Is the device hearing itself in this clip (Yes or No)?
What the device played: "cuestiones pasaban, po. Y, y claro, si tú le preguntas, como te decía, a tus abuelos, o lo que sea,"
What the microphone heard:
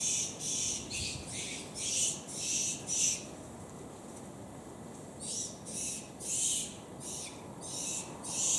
No